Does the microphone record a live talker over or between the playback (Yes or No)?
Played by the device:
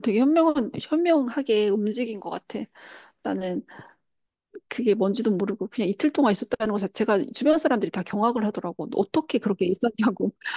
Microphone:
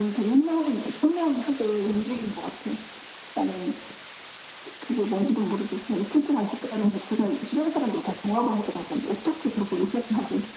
No